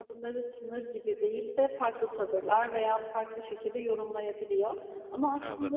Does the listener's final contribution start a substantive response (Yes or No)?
No